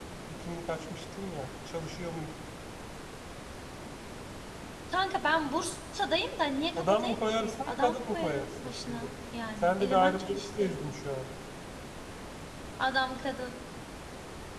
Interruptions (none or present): present